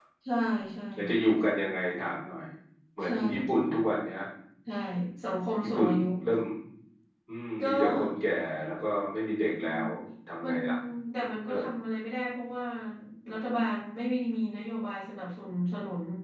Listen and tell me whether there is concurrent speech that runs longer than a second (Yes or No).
No